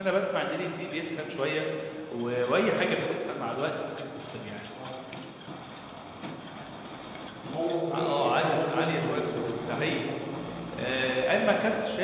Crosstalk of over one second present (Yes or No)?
Yes